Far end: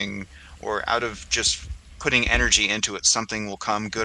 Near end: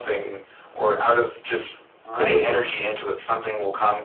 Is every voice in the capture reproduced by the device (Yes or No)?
No